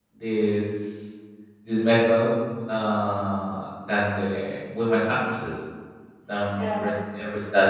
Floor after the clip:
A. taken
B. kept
B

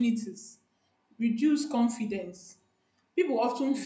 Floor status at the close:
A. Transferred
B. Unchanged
B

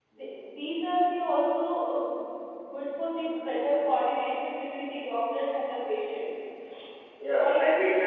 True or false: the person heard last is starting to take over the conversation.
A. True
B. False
A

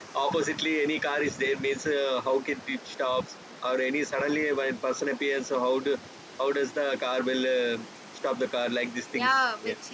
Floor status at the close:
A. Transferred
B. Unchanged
A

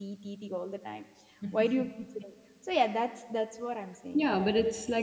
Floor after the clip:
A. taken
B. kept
A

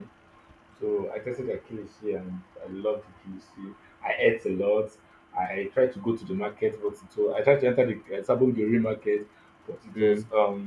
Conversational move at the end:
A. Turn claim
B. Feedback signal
B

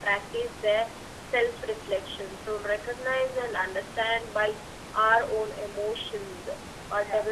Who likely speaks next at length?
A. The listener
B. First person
B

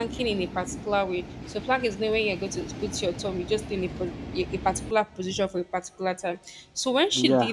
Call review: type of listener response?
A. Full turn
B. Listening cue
B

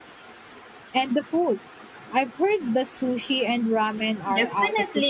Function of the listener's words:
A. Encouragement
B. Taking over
B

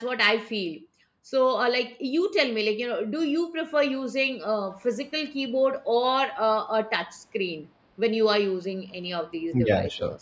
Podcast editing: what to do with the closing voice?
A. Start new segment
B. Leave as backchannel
A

